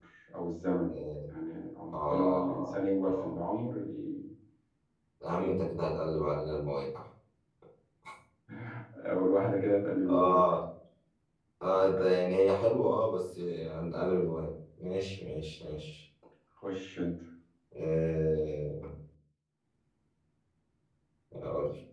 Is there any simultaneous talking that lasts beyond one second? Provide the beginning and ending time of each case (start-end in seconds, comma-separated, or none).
1.9-3.4